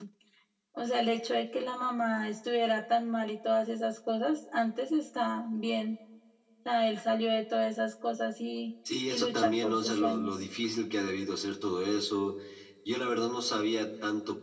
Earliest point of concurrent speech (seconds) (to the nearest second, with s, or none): 9 s